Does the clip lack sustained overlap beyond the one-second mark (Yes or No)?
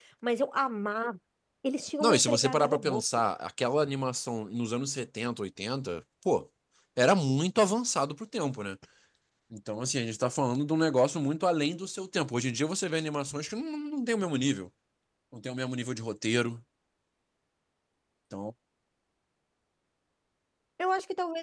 No